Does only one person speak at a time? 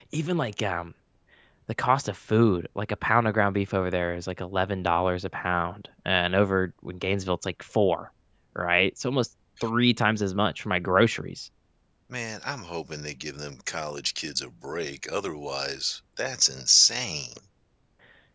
Yes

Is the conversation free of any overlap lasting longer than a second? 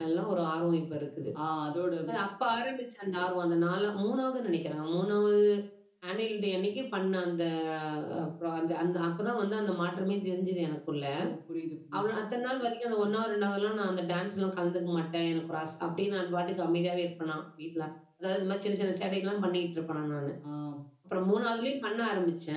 Yes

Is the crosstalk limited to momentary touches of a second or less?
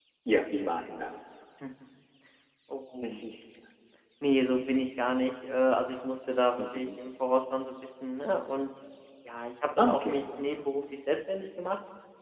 Yes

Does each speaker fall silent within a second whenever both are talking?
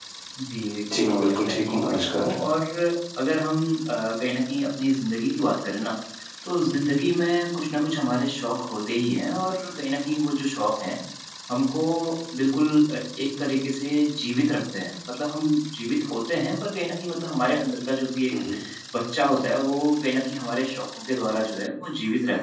No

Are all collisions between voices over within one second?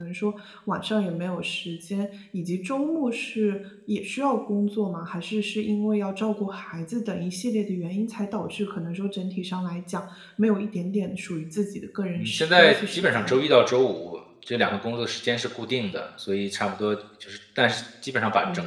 No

